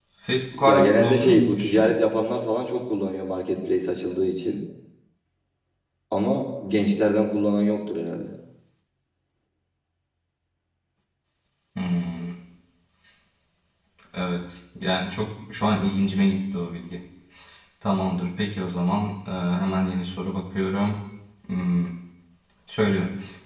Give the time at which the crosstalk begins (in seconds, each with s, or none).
0.5 s